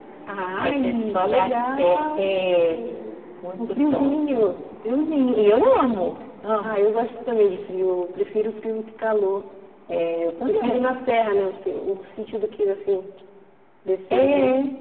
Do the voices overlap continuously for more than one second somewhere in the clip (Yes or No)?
Yes